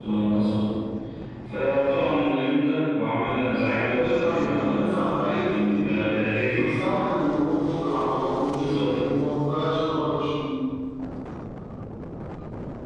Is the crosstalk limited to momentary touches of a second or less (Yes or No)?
No